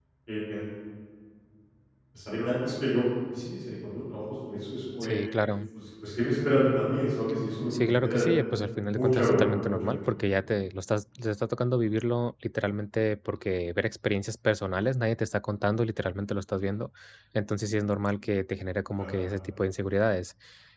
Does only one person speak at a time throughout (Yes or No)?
No